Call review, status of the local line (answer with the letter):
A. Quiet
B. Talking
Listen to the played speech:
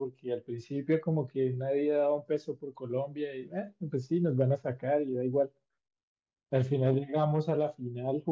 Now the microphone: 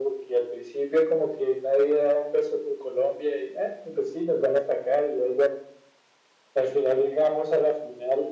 A